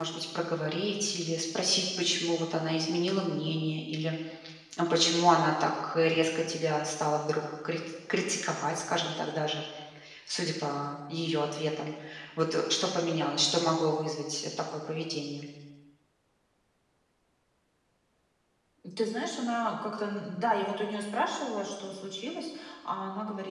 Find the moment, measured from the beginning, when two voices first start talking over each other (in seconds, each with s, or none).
none